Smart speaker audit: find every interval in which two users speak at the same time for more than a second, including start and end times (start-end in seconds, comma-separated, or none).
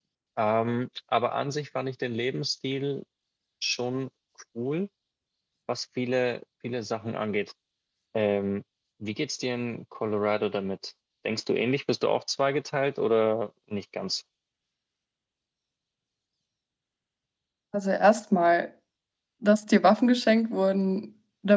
none